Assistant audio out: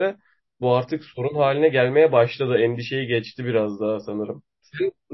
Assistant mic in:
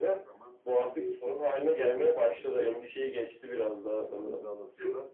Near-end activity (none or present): present